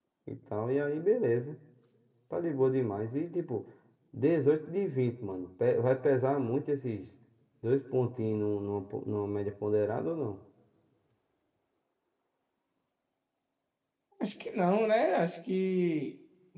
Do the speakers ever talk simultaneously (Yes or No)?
No